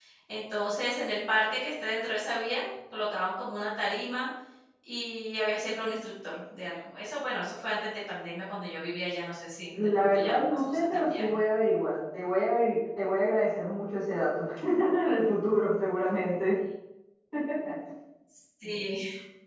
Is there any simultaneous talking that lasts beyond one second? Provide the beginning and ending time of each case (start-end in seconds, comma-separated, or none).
10.0-11.4